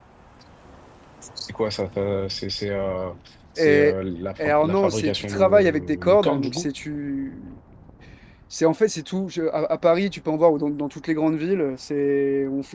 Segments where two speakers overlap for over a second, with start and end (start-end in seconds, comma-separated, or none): 4.4-6.7